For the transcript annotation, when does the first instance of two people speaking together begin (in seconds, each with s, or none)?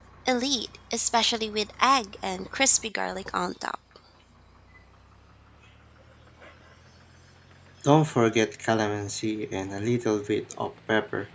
none